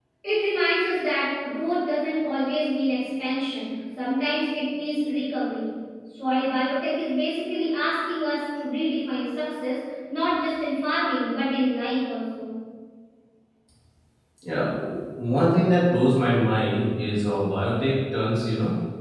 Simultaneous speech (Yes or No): No